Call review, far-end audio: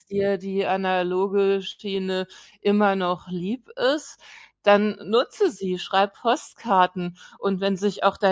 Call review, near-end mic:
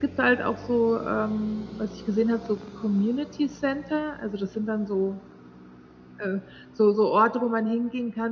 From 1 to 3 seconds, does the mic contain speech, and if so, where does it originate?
user only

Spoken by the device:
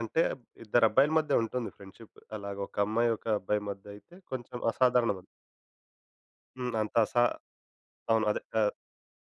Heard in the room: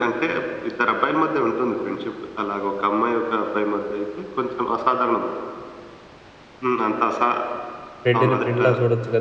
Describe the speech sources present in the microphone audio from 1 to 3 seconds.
echo only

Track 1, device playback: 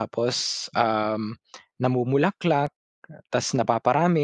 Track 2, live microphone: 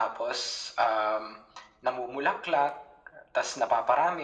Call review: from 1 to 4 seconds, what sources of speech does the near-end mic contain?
echo only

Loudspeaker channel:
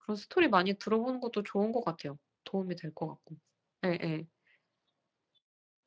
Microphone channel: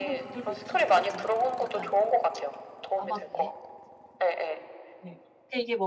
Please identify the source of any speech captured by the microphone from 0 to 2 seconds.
both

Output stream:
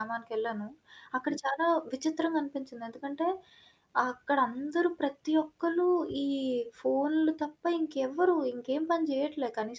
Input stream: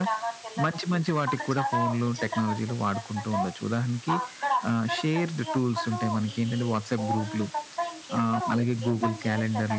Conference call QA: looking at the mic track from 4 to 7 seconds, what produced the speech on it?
both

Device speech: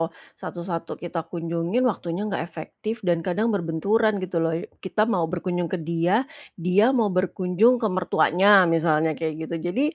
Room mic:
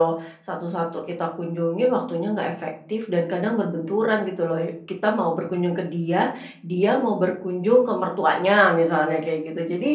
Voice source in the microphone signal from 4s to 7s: echo only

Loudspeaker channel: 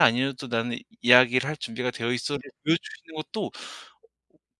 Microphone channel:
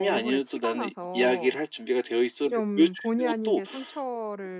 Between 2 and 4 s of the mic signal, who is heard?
both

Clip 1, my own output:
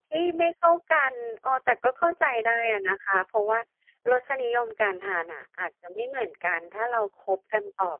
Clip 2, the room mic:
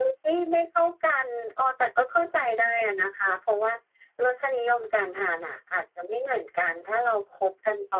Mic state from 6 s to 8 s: echo only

